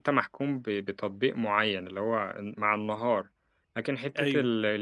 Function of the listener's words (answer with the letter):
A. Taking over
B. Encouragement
B